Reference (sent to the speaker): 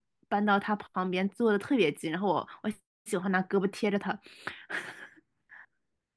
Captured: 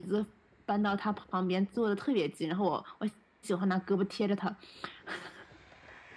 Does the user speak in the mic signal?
No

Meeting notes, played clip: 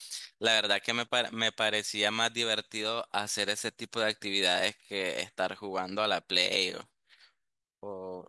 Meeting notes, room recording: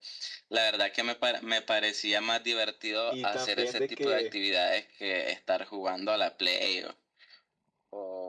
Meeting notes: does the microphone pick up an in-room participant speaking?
Yes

